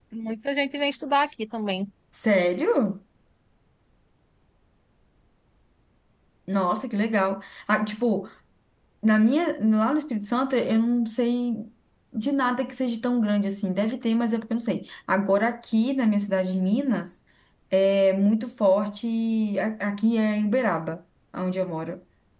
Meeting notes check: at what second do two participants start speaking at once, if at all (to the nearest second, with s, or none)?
none